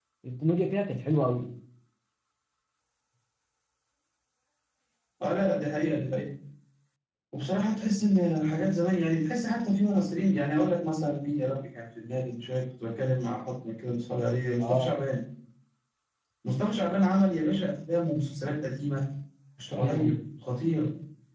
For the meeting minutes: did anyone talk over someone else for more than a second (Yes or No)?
No